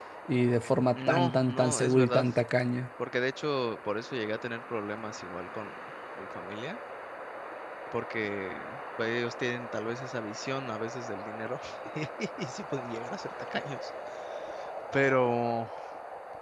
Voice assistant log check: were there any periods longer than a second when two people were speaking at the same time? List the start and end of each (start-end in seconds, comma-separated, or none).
1.0-2.3